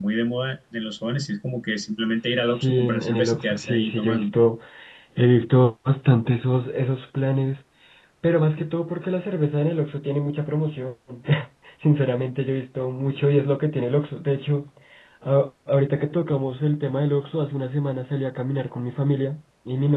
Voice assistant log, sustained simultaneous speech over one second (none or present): present